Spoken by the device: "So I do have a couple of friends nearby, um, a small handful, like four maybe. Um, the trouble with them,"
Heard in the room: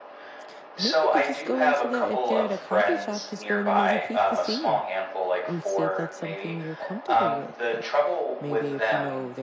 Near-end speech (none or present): present